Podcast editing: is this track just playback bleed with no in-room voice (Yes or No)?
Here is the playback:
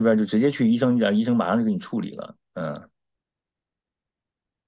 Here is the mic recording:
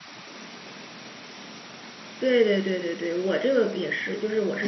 No